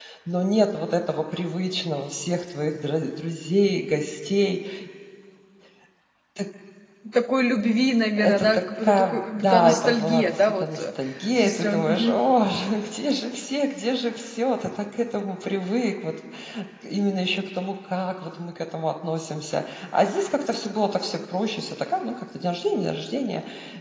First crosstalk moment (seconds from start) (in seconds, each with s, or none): 8.2 s